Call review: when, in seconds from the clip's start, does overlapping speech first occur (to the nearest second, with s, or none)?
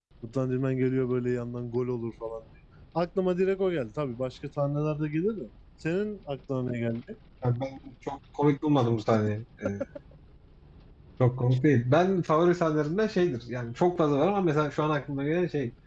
none